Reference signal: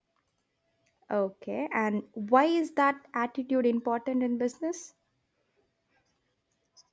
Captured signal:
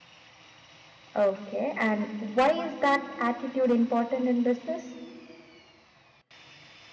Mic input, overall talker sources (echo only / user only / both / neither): echo only